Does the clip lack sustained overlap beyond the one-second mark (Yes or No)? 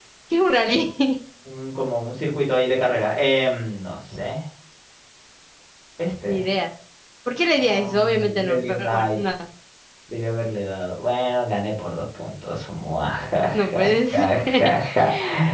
No